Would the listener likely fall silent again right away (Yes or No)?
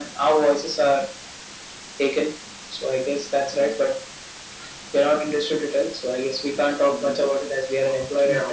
No